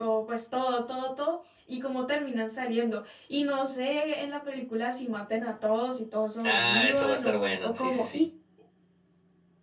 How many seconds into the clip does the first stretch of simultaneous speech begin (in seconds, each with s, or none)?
6.4 s